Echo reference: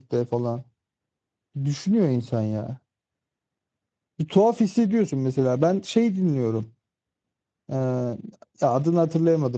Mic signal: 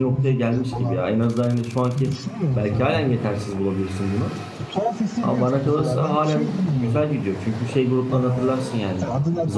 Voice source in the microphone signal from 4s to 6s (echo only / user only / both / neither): both